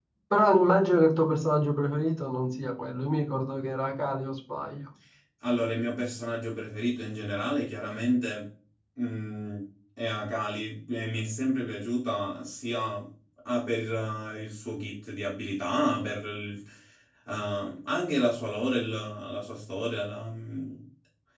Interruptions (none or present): none